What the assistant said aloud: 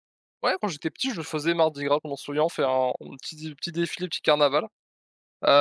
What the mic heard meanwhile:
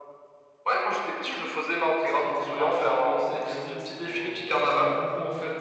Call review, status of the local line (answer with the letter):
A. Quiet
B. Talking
B